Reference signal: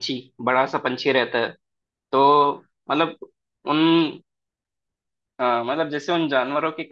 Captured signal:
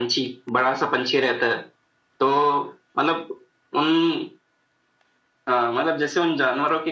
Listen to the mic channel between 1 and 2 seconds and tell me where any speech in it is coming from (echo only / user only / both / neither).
echo only